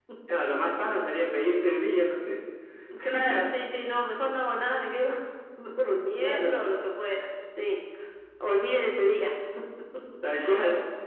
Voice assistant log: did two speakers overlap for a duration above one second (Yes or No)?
No